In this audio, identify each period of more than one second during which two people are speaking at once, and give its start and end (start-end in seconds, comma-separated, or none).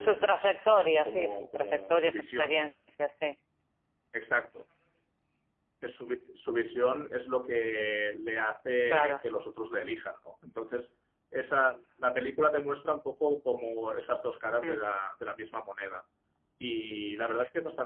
1.0-2.6